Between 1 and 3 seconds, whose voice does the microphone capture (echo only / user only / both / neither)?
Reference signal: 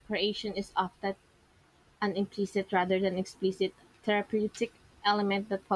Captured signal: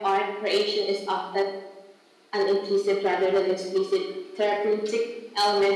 echo only